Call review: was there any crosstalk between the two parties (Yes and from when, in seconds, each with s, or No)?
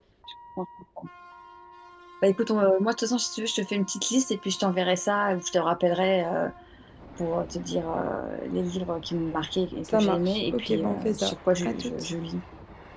Yes, from 9.8 s